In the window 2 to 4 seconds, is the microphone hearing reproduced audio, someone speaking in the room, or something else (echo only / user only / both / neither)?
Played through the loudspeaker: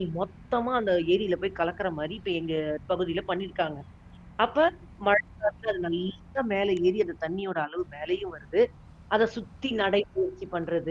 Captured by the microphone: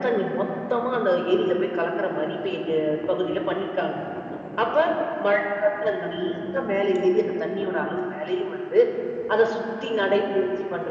echo only